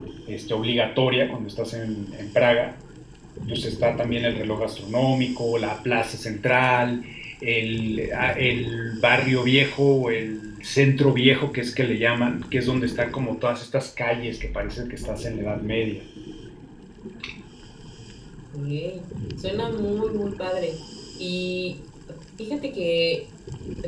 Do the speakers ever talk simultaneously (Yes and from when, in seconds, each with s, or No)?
No